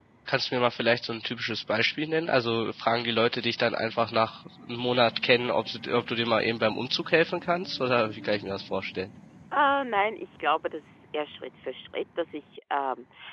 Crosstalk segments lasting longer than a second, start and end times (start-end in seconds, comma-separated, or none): none